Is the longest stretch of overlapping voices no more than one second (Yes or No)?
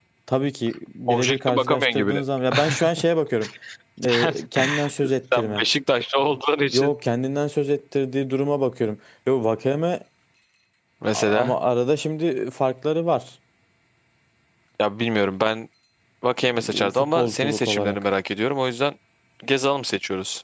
No